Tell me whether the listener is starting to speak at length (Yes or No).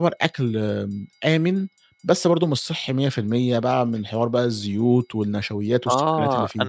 Yes